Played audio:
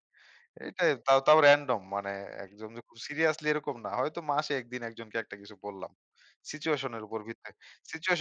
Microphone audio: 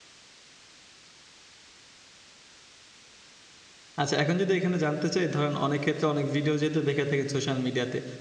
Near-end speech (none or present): present